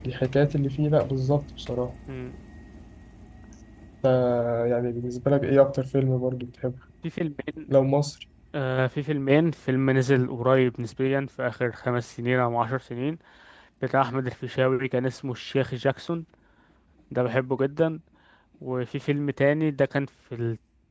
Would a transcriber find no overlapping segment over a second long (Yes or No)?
Yes